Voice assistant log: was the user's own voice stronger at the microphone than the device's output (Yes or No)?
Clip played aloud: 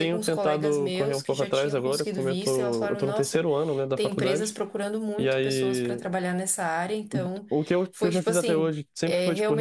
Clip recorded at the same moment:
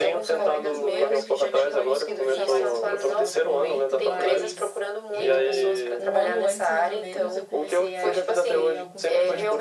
No